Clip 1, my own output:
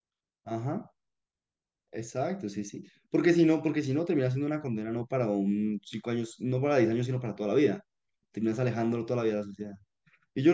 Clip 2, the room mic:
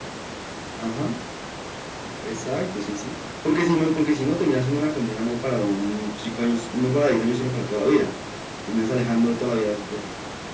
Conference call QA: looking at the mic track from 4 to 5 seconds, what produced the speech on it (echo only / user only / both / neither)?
echo only